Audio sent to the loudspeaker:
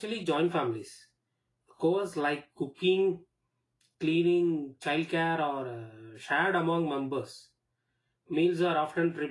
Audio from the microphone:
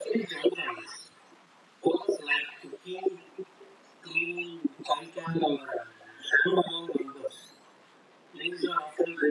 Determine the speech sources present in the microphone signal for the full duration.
echo only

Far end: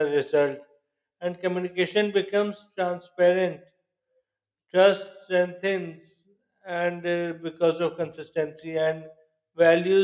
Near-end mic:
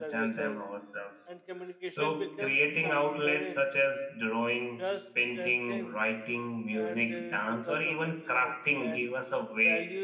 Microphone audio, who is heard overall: both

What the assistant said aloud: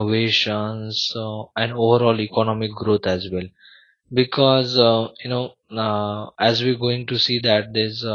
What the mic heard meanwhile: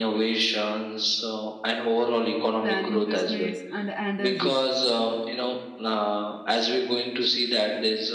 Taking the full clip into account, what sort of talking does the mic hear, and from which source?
both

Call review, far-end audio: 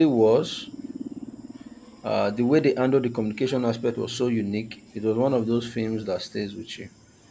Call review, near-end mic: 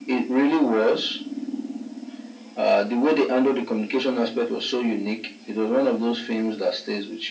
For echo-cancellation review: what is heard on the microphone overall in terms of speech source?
echo only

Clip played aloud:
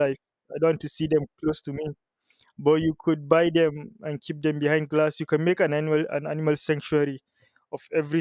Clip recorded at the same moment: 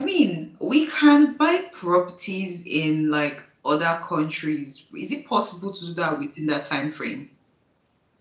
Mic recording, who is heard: user only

